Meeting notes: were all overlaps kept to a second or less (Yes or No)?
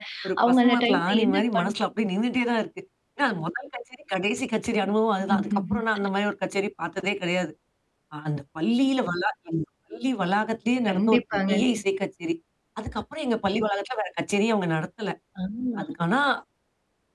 No